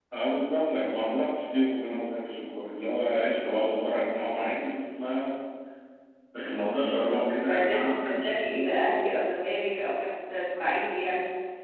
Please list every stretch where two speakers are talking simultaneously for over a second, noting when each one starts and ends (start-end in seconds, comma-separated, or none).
7.1-8.8